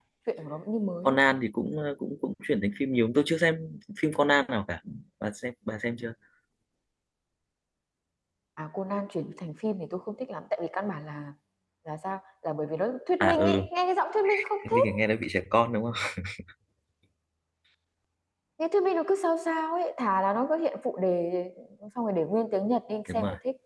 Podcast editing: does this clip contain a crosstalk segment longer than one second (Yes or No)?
No